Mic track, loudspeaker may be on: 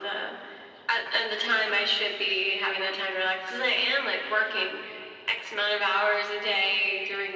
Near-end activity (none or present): none